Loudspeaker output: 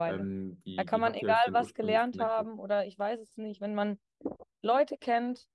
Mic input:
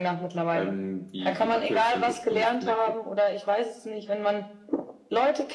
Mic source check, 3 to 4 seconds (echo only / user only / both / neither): echo only